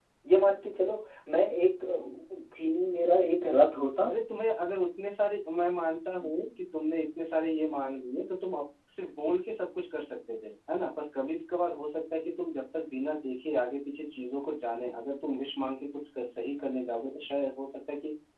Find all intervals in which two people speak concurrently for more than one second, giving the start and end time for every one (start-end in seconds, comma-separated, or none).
none